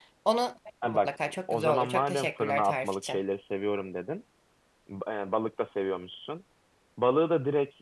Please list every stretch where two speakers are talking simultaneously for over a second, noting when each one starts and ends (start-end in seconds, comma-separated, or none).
0.8-3.2